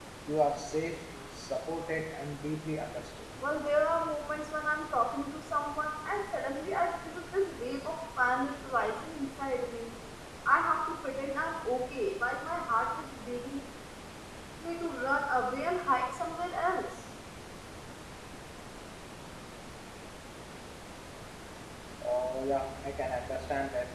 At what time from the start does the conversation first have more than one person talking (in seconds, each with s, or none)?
none